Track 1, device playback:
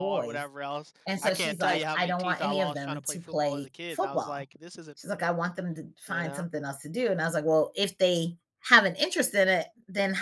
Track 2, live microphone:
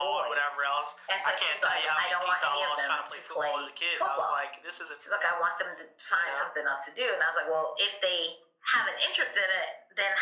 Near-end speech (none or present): none